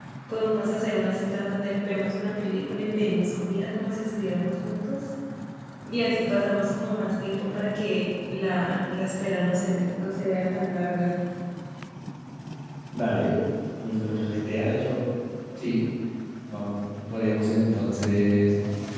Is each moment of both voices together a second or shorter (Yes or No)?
Yes